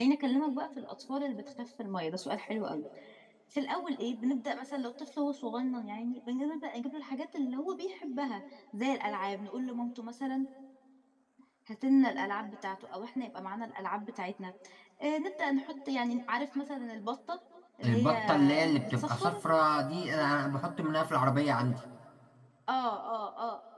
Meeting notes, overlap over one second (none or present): present